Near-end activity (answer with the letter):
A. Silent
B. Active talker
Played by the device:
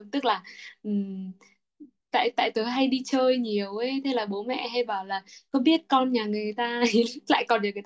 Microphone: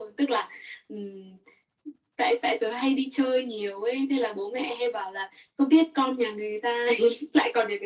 A